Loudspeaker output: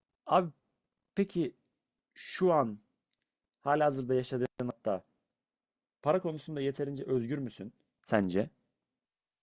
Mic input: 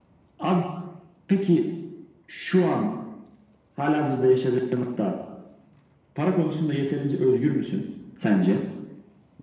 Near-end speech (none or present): none